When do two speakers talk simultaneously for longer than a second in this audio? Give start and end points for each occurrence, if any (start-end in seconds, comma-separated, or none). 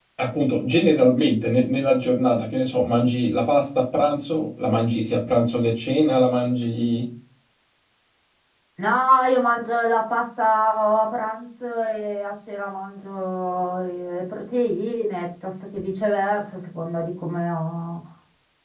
none